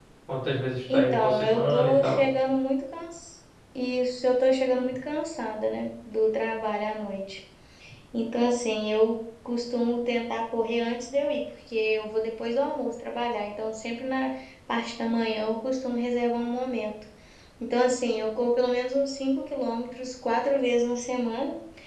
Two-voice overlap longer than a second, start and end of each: 0.9-2.2

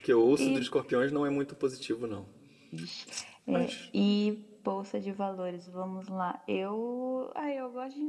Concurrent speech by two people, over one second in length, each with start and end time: none

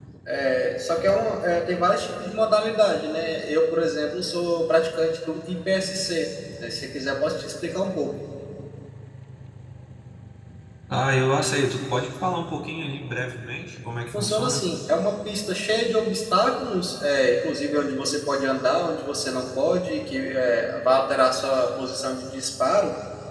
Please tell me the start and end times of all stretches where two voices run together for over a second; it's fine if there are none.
none

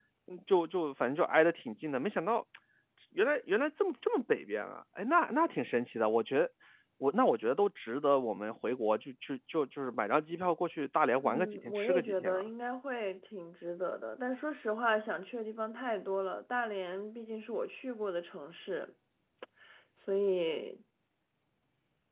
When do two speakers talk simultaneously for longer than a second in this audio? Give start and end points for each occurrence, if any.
11.2-12.4

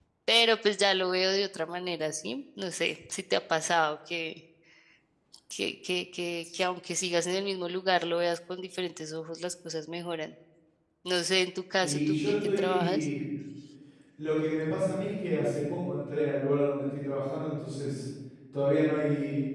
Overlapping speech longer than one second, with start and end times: 11.8-13.1

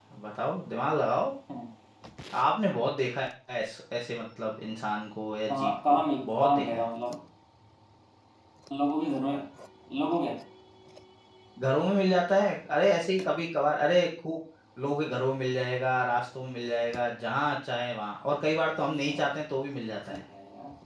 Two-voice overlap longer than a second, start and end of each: 5.5-6.9

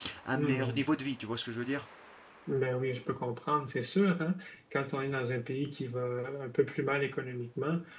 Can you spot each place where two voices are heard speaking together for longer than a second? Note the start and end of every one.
none

